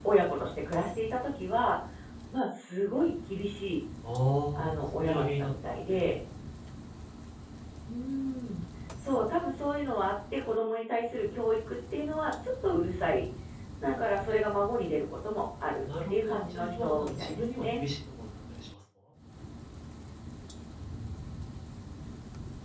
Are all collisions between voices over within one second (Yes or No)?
No